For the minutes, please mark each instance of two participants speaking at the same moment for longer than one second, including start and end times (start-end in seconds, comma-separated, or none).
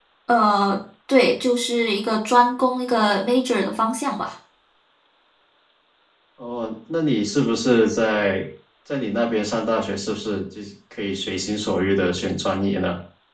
none